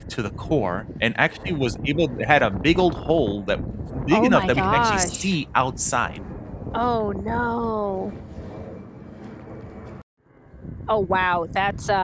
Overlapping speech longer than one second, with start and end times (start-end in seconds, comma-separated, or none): 4.1-5.4